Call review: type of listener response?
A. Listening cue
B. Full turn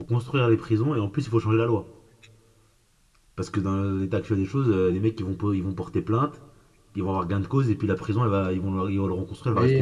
B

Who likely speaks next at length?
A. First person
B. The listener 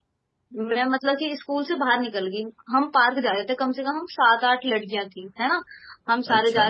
A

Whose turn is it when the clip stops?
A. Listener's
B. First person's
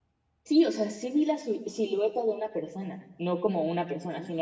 B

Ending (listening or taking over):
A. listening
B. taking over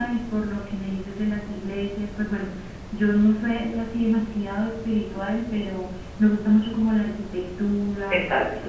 A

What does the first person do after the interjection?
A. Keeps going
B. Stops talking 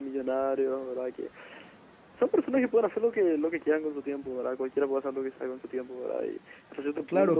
B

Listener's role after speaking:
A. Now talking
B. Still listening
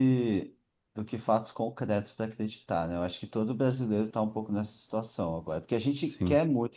B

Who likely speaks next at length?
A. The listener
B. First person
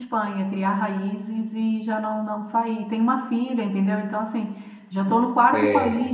B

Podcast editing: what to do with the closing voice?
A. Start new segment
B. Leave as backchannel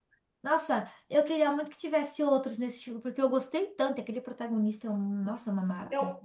A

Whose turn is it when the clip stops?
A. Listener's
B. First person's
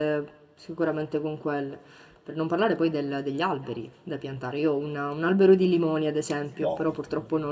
B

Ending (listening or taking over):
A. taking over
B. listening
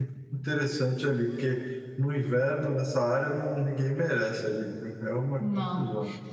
A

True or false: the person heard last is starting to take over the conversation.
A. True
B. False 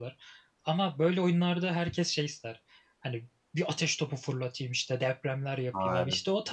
B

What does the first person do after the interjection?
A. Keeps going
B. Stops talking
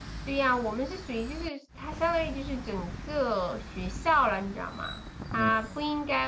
A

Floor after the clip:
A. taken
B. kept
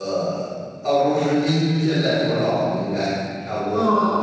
A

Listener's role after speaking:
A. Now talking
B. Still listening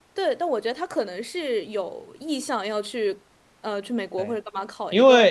A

